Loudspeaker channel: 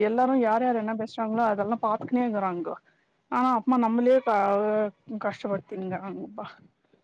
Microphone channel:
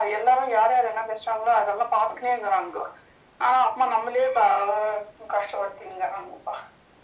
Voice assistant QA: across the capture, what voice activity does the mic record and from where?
echo only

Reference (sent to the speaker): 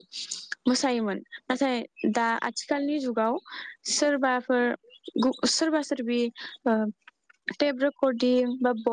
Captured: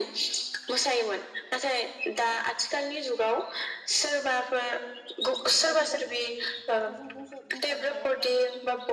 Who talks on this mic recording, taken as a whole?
both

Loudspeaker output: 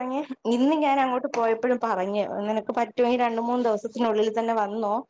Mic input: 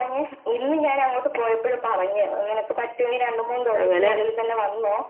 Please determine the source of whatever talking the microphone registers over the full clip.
both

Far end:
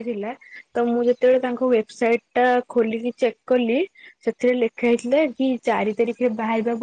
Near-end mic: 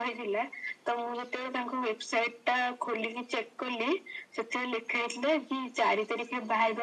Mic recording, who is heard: echo only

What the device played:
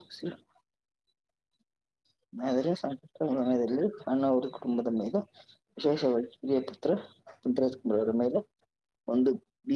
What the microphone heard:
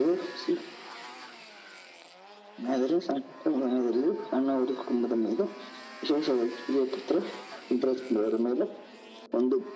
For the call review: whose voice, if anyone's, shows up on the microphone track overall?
echo only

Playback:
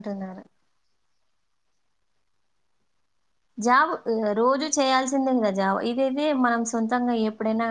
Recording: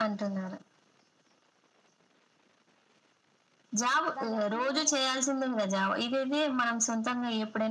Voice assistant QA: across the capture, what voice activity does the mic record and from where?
both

